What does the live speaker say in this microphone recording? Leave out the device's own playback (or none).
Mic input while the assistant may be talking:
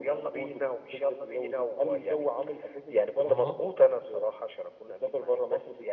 آه،